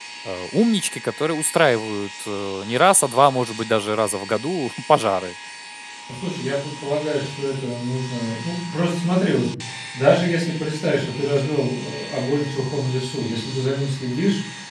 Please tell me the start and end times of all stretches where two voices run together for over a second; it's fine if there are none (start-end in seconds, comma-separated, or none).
none